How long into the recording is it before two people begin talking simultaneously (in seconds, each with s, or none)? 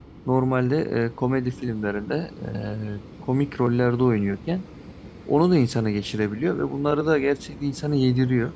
none